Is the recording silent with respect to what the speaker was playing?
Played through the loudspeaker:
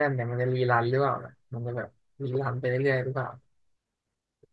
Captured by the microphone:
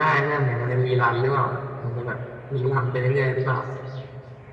No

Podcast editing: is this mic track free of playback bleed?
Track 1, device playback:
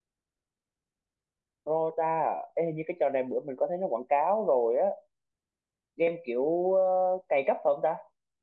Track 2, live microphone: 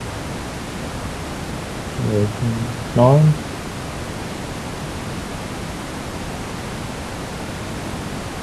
Yes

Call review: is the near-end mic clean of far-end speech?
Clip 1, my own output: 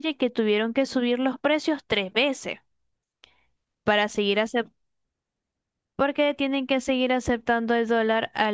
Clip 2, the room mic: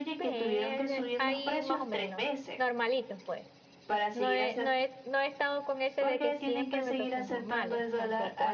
No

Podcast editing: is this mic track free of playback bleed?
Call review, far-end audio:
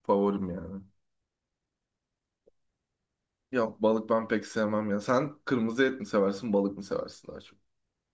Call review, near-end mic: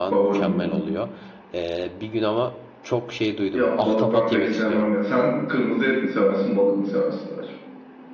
No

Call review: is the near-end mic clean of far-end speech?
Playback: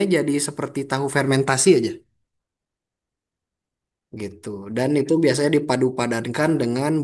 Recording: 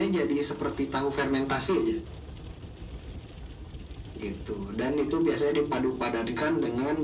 No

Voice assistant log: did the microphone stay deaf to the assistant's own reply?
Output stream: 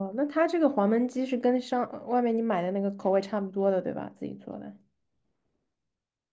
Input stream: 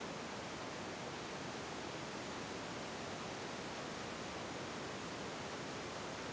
Yes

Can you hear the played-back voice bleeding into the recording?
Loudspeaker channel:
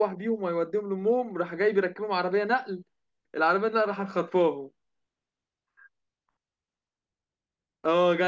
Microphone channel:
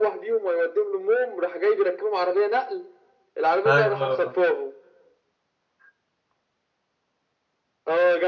Yes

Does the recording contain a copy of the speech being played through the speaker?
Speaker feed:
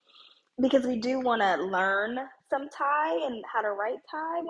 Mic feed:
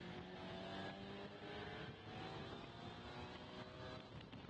No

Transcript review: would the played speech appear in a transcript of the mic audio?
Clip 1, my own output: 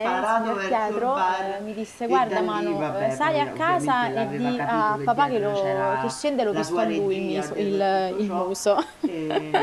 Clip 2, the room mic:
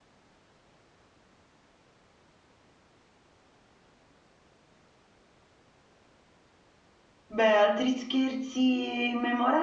No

